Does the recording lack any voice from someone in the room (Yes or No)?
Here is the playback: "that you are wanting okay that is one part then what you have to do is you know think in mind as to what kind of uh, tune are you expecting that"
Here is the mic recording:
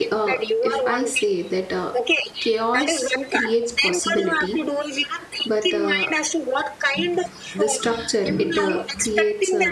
No